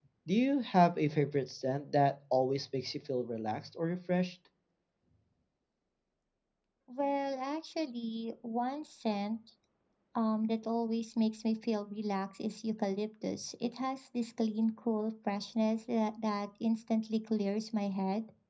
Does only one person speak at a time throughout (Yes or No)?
Yes